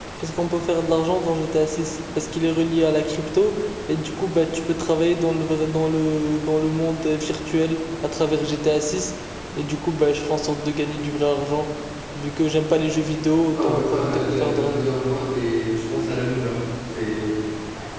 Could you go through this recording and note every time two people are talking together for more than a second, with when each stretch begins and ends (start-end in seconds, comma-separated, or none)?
13.5-14.8